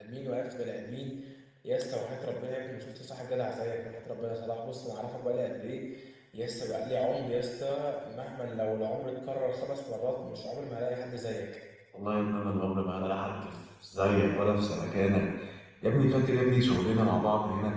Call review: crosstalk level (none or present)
none